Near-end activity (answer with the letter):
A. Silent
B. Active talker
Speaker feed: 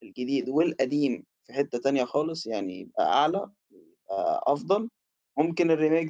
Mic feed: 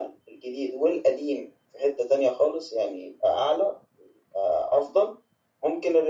A